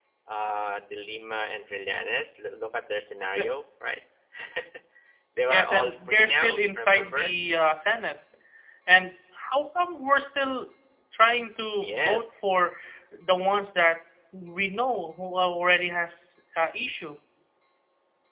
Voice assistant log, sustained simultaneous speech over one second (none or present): present